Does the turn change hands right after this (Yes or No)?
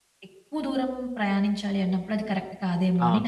Yes